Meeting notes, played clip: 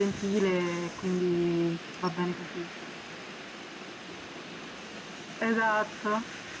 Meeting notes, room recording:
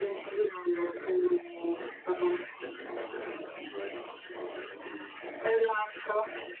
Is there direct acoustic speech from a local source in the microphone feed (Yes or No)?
Yes